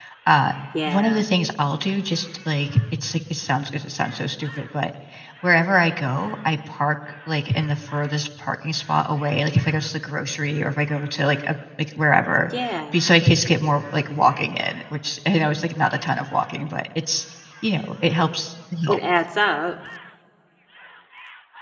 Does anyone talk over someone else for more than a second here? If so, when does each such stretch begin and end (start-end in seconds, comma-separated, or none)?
none